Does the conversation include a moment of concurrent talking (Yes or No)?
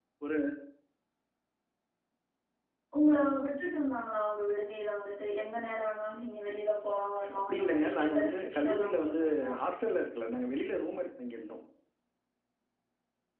Yes